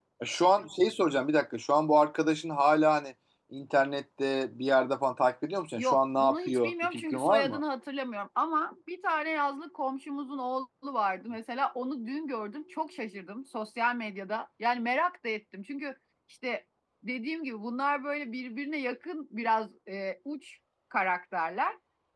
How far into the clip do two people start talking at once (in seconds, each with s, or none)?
5.8 s